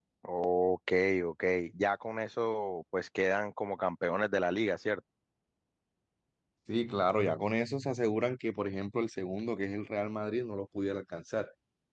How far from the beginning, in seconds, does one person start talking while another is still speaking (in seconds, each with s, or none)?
none